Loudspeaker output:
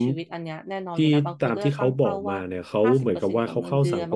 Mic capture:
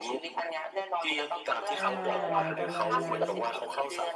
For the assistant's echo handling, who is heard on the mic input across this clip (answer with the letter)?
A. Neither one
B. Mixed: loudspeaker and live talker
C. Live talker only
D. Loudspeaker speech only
B